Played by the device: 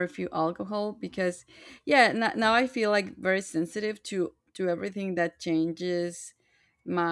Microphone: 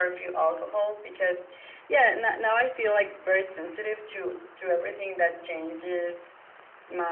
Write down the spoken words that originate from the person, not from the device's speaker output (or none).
none